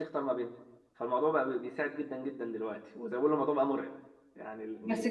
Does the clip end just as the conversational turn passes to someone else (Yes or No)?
Yes